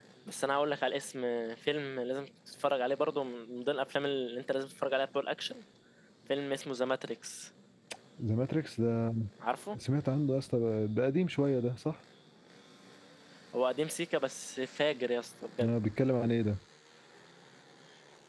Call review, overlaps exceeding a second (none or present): none